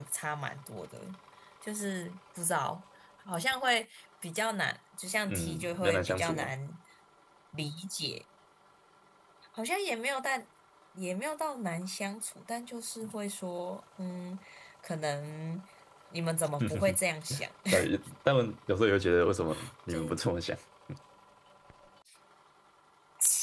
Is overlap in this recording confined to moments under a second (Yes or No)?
No